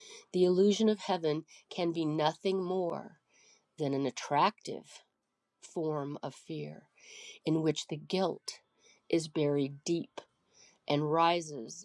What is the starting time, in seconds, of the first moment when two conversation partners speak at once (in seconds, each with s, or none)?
none